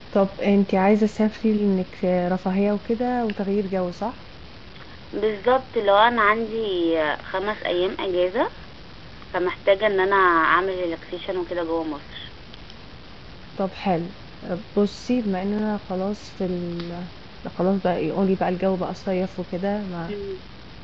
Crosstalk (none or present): none